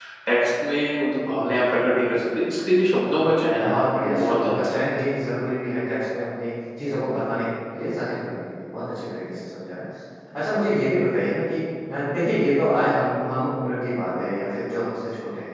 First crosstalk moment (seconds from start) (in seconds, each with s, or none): 3.5 s